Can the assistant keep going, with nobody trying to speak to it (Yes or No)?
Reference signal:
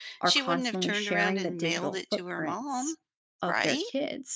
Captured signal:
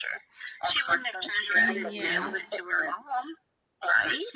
No